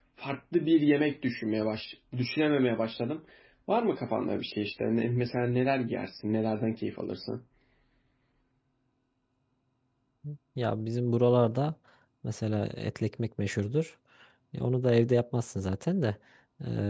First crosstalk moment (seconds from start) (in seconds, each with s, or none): none